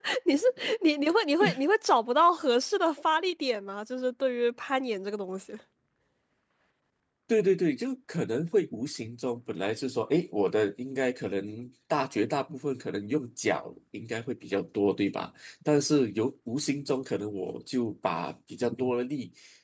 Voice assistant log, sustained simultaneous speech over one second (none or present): none